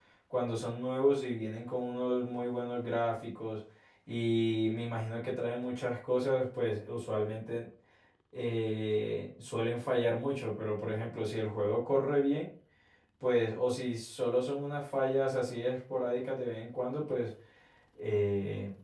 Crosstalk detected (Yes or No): No